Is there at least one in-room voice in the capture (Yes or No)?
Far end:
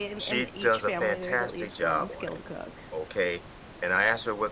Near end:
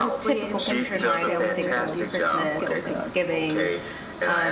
Yes